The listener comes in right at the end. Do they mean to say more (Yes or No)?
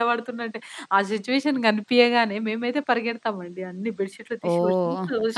No